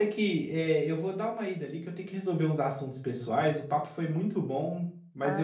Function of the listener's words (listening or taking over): listening